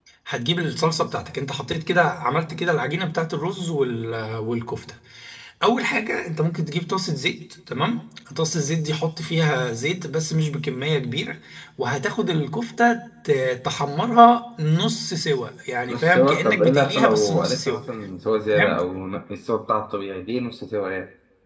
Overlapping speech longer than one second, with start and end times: 15.9-17.8

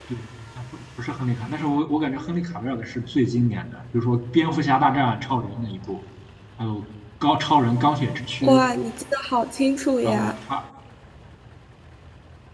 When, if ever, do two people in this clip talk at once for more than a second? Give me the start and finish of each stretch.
none

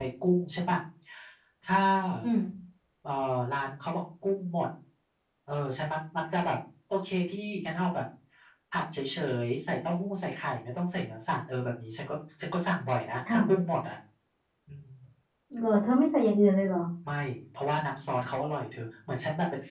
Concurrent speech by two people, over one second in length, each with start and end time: none

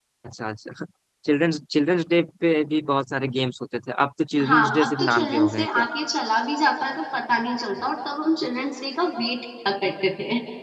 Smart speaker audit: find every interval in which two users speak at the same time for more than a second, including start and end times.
4.4-5.8

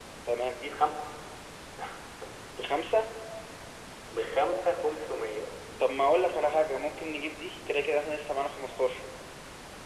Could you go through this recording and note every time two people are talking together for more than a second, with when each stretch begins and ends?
none

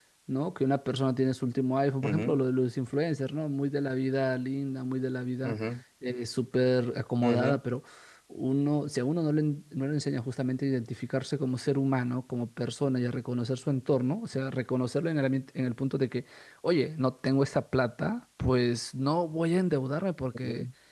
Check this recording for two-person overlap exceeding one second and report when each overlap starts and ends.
none

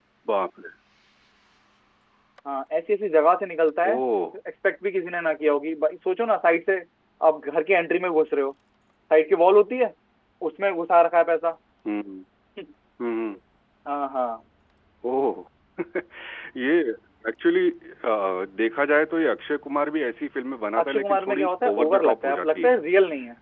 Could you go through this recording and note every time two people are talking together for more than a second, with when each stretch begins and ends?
20.8-22.7

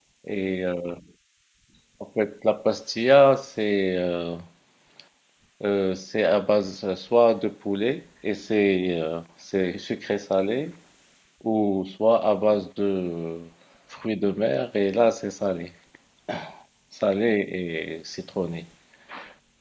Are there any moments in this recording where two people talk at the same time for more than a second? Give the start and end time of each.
none

